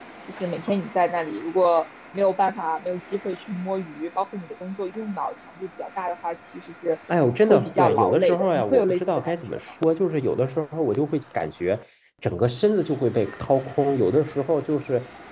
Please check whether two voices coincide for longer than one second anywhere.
Yes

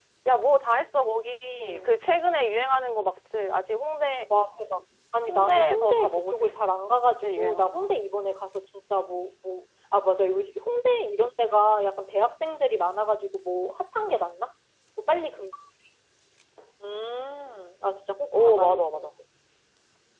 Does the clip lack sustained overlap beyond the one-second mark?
No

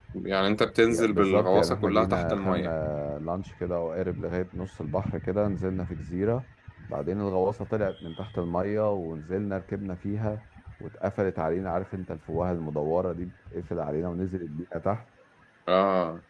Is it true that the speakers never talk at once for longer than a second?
No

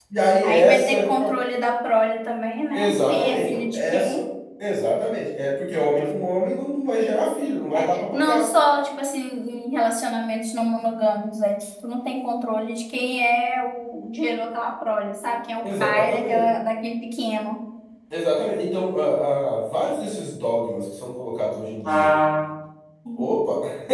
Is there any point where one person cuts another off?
Yes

